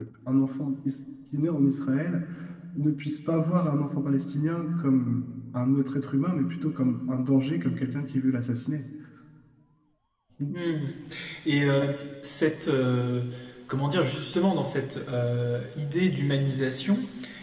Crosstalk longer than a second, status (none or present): none